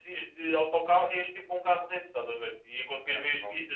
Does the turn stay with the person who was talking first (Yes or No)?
Yes